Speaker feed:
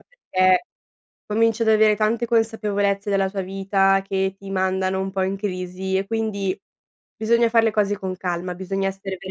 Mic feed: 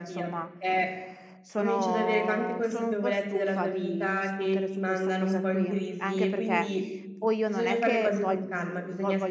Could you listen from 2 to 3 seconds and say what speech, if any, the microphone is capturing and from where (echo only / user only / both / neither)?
both